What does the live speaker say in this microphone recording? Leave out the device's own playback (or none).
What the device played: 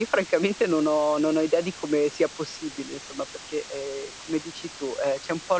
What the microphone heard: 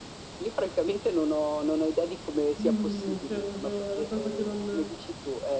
mhmm, cioè proprio è una cosa che non